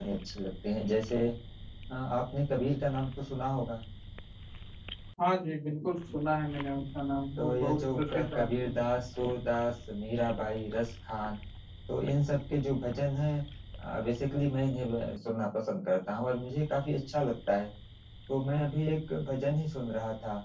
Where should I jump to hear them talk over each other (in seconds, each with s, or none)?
7.4 s